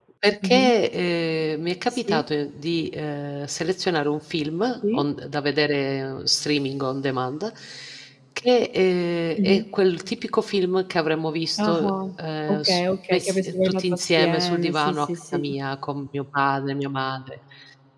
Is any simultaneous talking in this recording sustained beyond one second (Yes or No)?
Yes